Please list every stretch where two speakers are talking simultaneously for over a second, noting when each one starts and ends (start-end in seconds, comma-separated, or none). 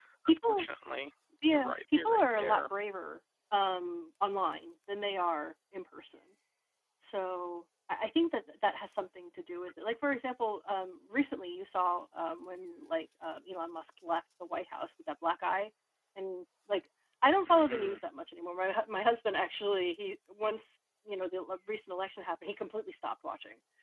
1.5-2.7